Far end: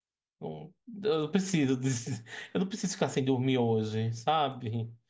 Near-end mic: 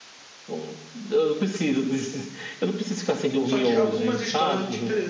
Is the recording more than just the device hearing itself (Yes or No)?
Yes